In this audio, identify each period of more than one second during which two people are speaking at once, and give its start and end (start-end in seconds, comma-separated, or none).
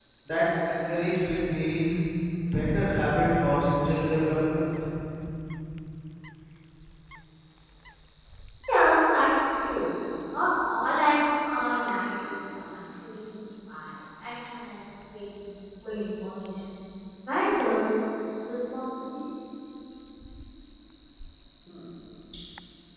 none